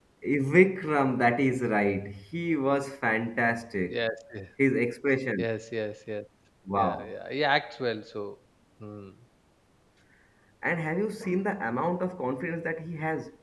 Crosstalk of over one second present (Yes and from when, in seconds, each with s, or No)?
No